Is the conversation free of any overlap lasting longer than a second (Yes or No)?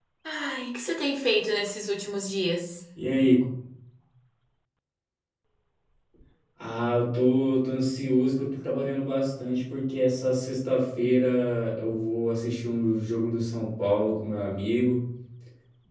Yes